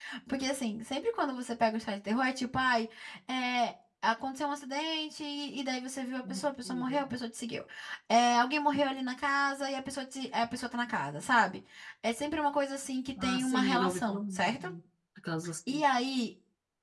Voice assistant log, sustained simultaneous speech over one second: present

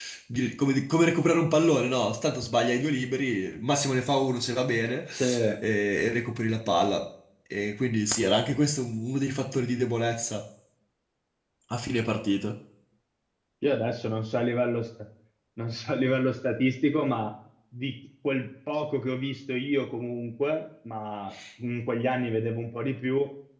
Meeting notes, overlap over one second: none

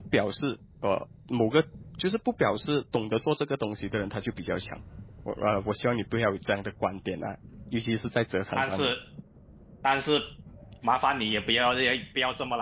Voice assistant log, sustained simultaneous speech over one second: none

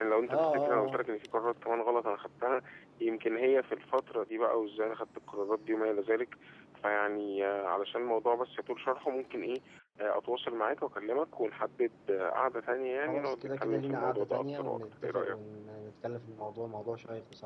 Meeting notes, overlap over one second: present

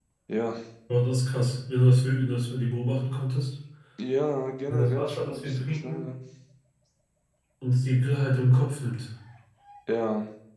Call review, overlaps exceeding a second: present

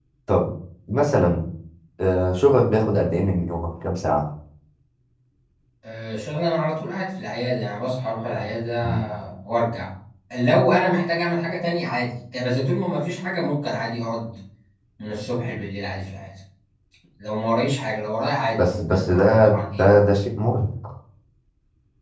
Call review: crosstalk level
present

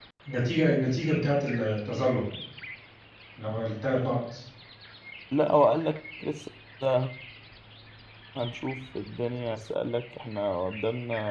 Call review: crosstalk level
none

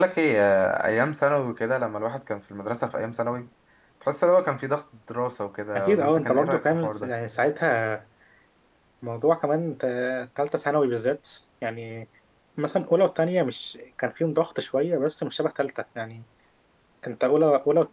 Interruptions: present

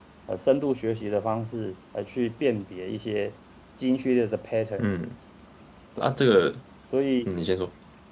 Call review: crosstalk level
none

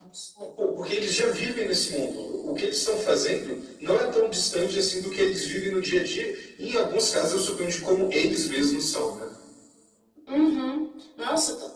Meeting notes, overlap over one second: none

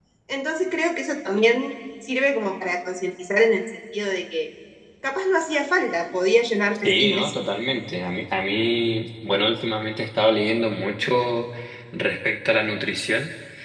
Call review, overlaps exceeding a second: none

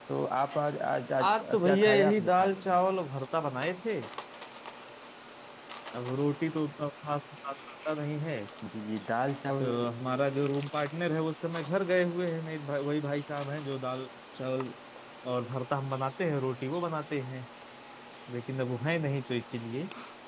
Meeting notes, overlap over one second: present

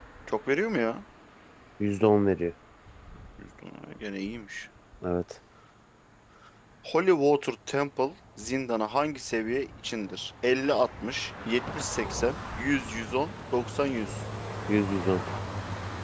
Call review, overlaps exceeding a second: none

